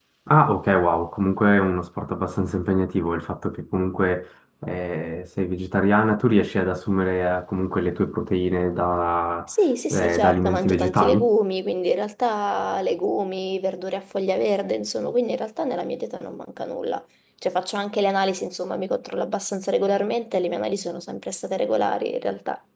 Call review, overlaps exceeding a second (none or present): present